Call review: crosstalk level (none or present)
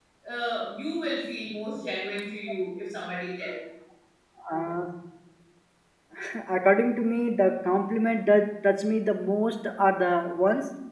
none